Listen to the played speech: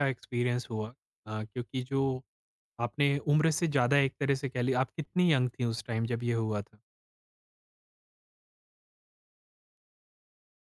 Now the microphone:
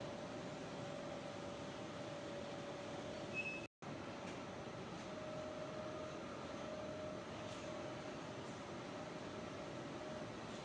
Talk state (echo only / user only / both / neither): neither